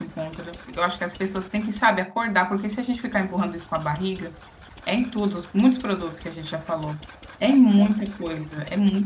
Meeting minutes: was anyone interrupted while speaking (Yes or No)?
No